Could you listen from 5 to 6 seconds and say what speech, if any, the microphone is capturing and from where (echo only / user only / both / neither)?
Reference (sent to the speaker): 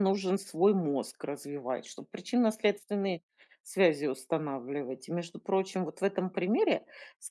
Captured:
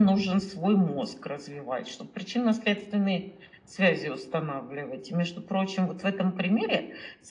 echo only